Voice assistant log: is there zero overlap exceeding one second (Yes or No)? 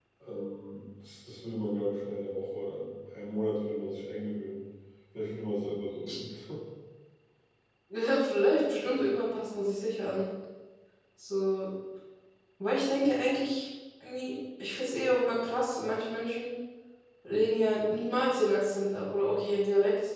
Yes